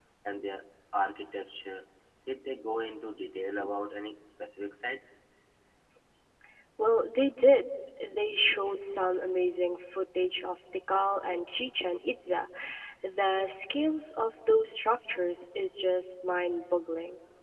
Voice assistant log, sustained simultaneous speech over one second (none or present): none